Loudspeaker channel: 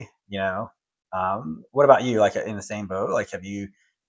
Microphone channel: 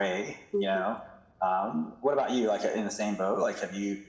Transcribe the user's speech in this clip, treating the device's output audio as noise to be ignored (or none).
Mhm.